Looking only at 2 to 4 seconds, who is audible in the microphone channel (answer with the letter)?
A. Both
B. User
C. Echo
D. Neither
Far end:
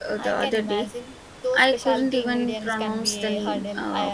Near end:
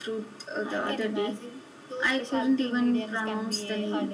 C